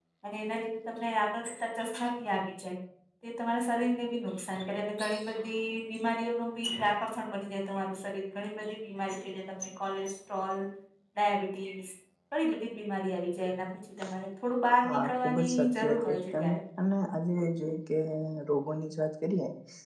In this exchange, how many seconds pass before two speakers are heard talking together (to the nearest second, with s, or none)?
15 s